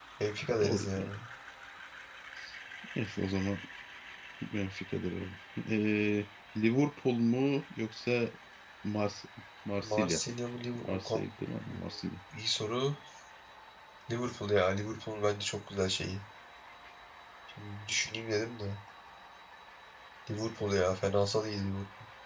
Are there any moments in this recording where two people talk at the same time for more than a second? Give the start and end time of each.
none

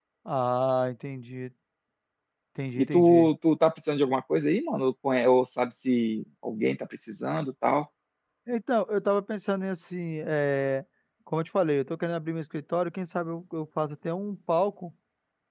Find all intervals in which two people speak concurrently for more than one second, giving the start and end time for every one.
none

